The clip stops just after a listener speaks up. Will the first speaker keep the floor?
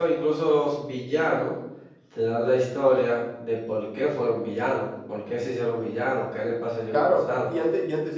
No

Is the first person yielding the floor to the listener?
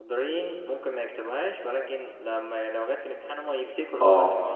Yes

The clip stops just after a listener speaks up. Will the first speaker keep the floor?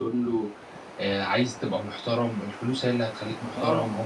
No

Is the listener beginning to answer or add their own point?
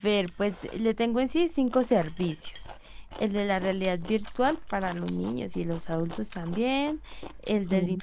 No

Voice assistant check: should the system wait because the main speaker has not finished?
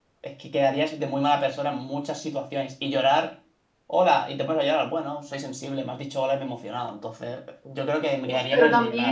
No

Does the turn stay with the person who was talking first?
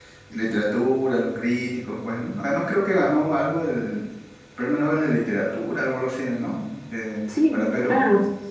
No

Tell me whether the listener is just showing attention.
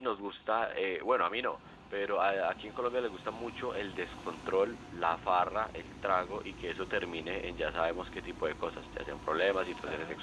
Yes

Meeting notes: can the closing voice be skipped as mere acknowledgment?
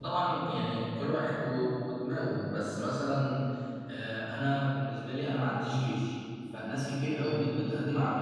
Yes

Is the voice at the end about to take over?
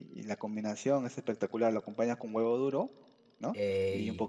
No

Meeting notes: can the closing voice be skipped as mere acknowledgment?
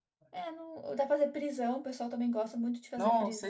No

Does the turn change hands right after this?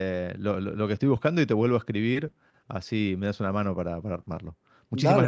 Yes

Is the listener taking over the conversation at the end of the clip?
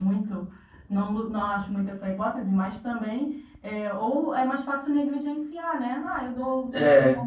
No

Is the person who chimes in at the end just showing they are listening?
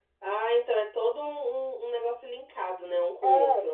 No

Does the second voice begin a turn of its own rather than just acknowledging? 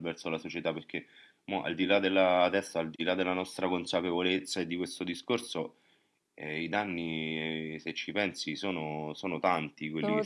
Yes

